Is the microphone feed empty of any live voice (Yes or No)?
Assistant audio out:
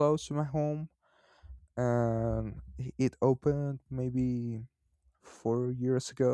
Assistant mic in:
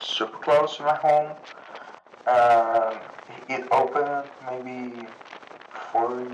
Yes